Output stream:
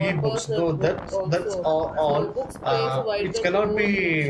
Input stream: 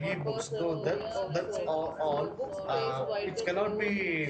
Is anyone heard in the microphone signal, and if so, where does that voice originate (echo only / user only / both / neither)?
both